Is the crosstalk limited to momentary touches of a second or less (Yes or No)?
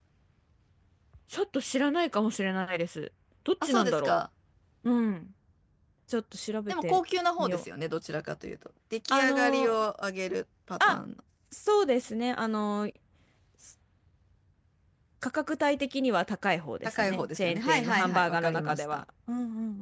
No